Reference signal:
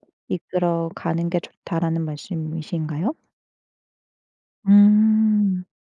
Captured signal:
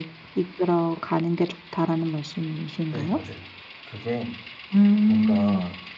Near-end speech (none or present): present